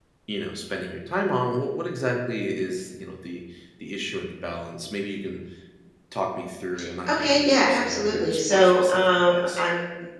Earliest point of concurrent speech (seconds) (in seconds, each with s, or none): 7.1 s